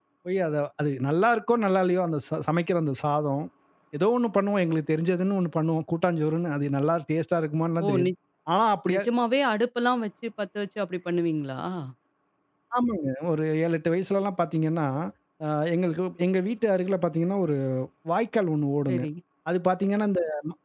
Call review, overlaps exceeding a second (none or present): none